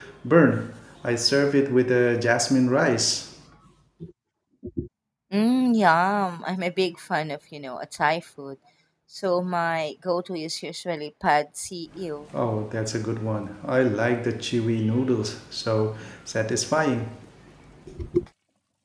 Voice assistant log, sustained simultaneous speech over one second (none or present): none